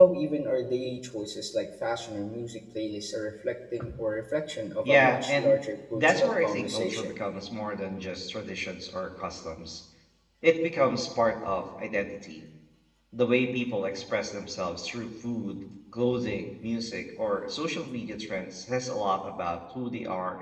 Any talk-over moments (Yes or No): Yes